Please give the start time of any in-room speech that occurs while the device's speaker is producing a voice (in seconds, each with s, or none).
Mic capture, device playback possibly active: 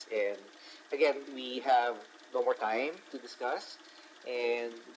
none